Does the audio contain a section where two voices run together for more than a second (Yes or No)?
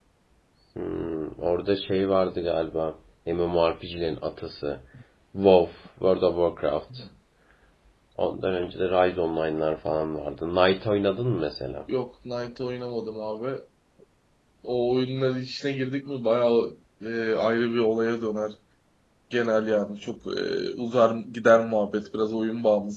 No